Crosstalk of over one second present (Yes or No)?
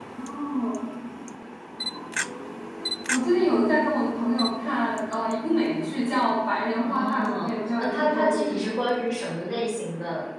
Yes